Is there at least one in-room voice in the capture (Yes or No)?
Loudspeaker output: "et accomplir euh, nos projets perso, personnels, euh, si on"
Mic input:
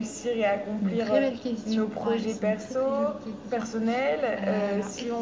Yes